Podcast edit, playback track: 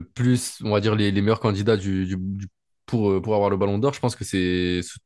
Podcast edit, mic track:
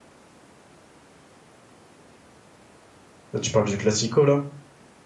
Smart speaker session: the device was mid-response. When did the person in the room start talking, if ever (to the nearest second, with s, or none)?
3 s